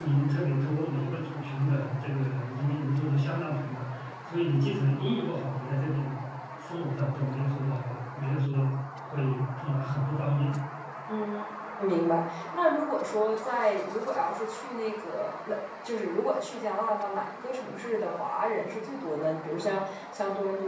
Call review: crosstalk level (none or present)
none